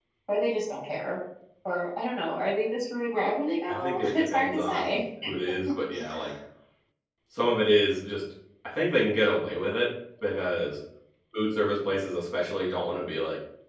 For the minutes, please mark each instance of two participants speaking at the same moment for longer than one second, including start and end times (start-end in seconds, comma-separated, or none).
3.7-4.9